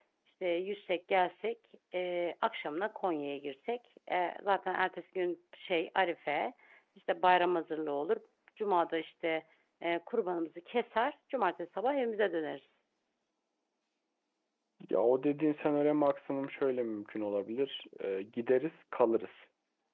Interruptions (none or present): none